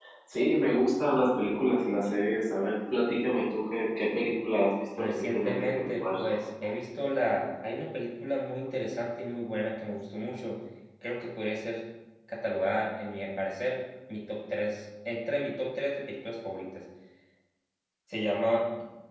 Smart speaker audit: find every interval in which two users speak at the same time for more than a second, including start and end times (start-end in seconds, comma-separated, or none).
5.0-6.5